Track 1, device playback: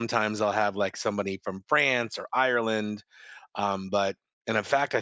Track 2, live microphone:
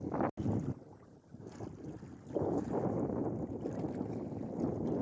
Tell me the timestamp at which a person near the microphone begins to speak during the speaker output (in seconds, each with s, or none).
none